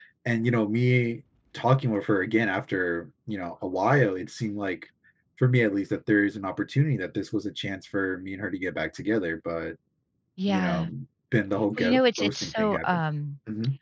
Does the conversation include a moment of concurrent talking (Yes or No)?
Yes